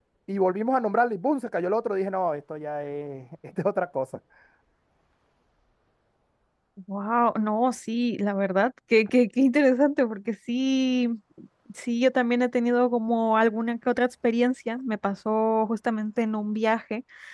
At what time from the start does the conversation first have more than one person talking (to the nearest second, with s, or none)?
none